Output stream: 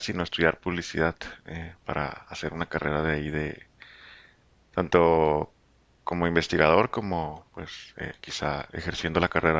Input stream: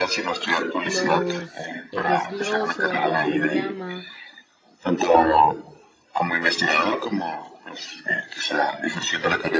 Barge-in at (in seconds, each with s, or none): 0.8 s